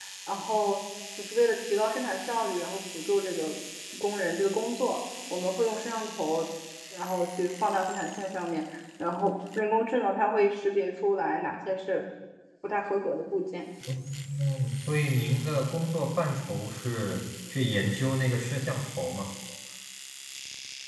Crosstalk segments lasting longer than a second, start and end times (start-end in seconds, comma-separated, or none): none